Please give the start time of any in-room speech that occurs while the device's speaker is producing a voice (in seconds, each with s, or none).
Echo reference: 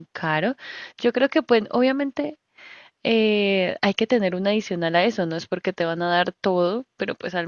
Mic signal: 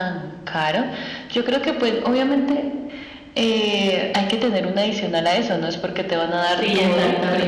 6.5 s